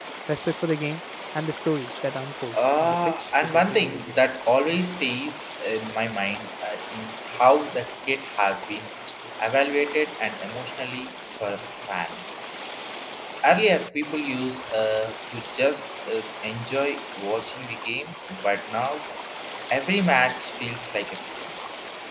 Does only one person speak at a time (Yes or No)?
No